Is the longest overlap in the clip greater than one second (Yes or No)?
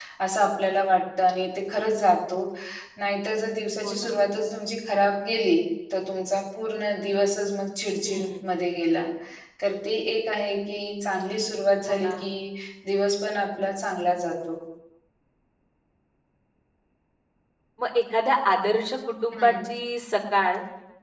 No